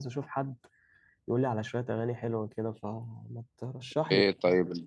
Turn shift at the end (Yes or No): Yes